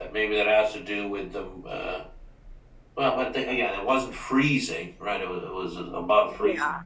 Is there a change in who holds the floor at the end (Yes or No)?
No